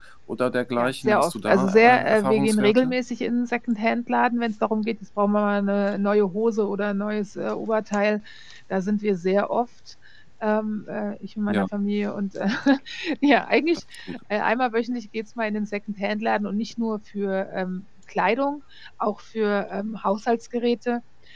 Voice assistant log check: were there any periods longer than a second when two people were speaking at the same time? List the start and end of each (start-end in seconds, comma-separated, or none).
0.8-3.0